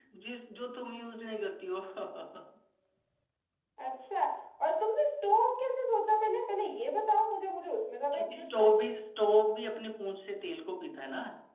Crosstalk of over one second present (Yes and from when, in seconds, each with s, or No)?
No